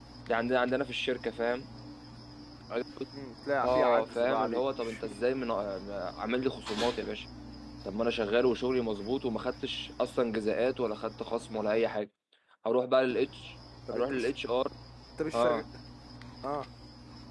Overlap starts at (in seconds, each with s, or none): 3.6 s